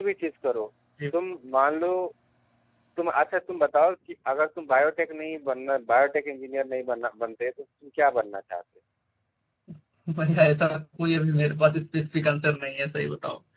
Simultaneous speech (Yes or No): No